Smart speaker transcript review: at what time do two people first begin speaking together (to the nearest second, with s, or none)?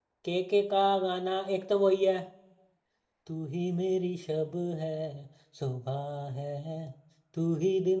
none